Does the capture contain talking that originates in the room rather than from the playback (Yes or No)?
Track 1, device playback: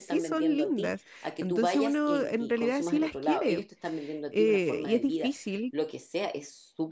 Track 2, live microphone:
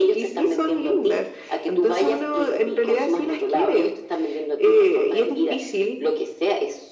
No